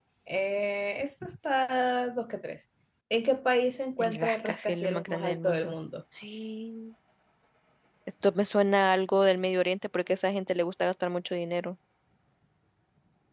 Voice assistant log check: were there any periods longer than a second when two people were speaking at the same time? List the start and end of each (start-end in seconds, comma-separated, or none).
4.0-5.8